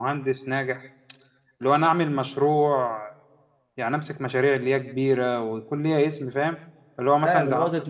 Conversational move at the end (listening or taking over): taking over